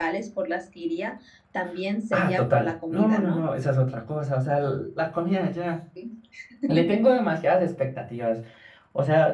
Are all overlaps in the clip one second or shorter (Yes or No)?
No